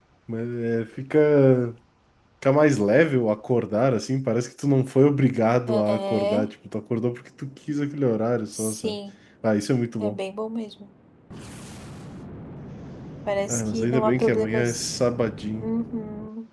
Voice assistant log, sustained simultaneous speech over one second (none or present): present